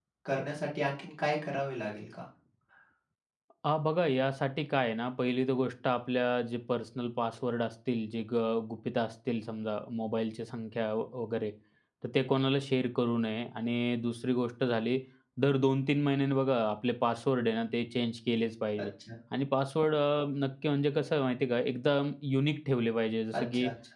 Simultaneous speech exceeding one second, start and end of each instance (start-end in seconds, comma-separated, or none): none